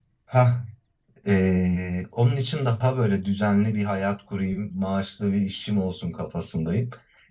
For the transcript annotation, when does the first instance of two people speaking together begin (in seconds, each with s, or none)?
none